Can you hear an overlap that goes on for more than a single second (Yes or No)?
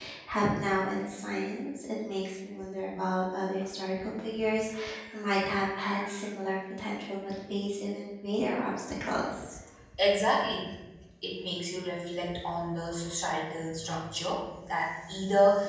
No